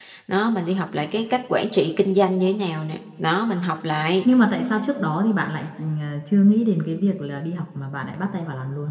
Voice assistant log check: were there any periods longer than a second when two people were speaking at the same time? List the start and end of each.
none

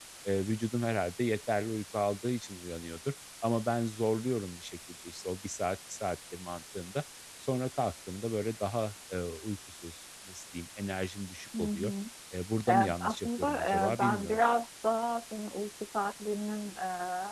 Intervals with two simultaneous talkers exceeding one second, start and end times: 12.7-14.4

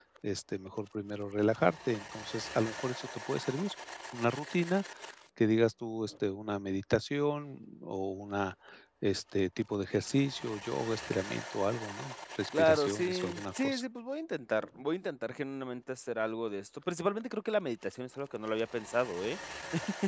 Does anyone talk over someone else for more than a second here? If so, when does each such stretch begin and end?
12.6-13.8

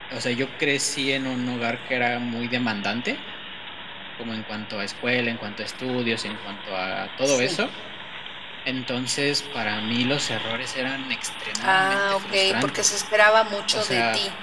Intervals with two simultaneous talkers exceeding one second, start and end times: 11.6-13.0

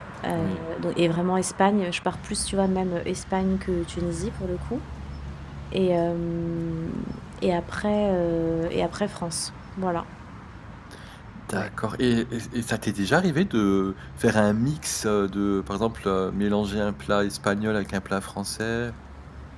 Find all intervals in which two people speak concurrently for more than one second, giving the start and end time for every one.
none

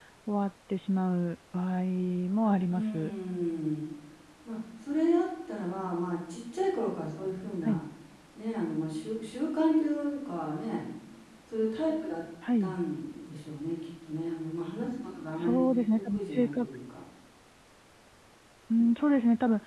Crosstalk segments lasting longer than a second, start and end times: 15.4-16.7

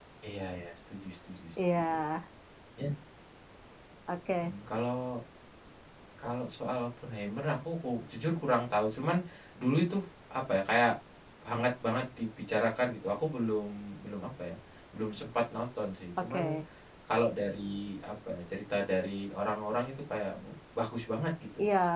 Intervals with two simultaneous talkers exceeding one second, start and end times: none

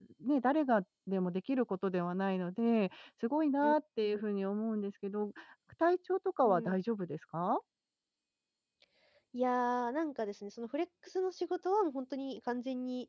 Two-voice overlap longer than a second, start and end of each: none

